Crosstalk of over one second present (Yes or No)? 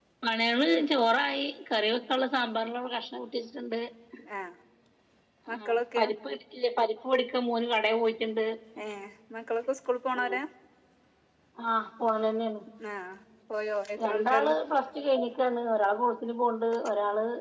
No